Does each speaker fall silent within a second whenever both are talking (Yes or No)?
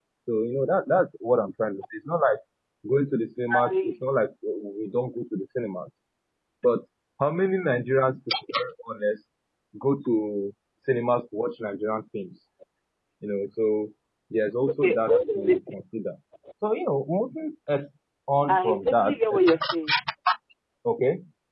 No